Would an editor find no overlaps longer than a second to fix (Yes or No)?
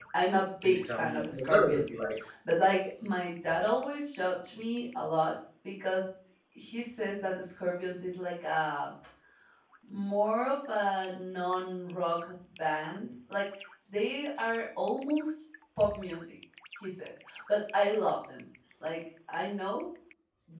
No